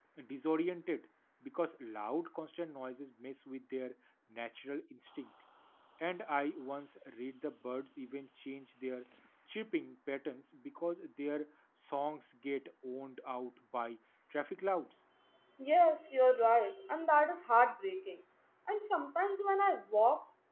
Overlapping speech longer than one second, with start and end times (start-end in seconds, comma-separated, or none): none